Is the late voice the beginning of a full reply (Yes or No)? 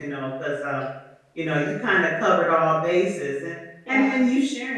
No